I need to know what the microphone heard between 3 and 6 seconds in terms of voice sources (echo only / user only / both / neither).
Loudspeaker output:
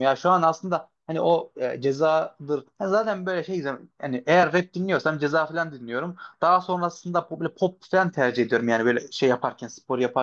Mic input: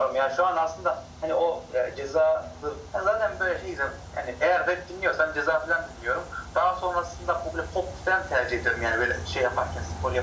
echo only